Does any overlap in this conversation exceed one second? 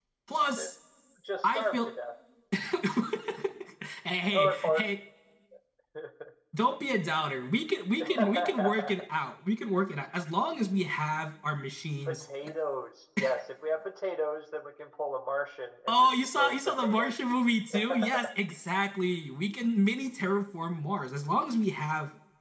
Yes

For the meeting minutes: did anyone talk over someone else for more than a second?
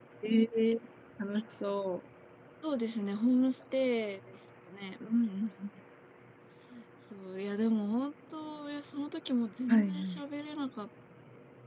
No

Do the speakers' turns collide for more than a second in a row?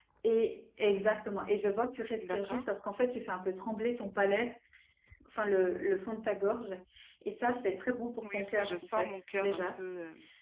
Yes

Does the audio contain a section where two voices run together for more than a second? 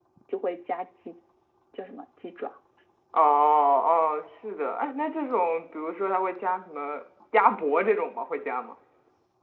No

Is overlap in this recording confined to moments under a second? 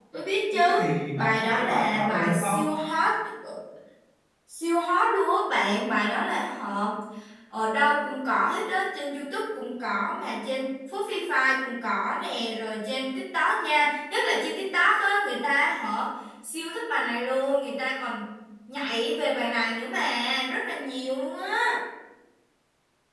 No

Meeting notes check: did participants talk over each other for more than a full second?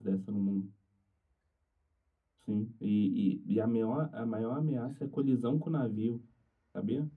No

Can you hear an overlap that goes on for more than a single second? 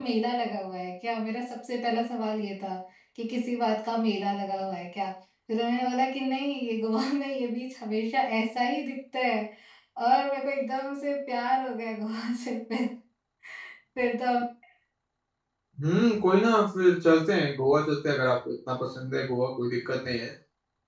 No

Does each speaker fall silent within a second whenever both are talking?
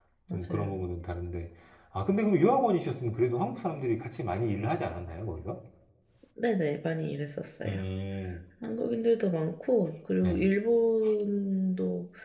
Yes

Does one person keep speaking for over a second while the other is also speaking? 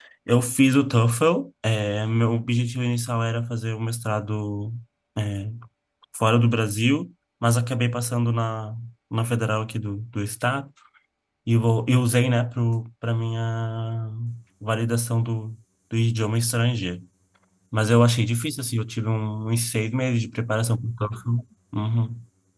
No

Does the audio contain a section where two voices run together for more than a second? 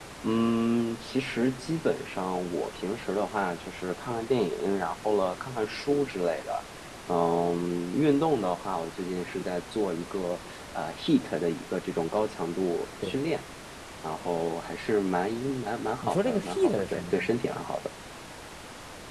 Yes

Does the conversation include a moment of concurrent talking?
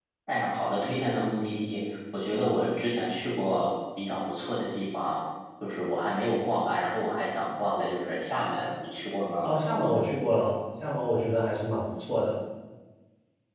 No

